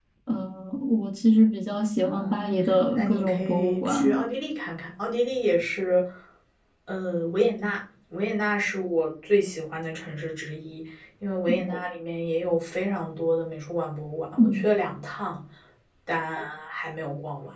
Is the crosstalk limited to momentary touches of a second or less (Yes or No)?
No